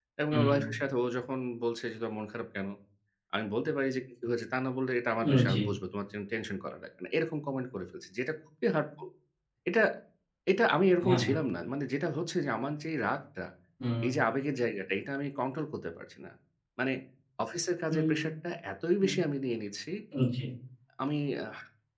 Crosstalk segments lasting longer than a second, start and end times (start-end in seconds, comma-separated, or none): none